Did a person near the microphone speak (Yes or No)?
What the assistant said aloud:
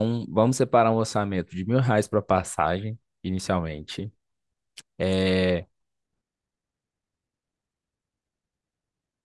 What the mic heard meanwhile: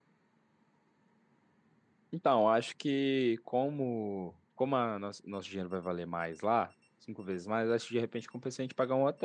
Yes